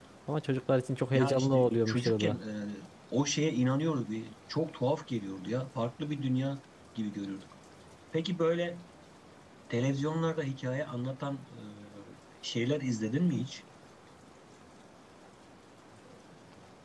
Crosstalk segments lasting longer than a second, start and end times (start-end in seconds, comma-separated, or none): 1.1-2.4